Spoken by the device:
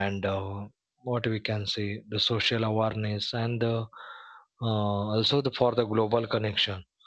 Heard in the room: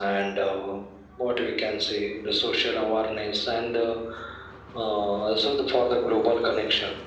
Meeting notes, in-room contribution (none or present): none